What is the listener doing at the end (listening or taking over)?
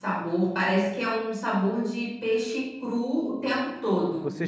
taking over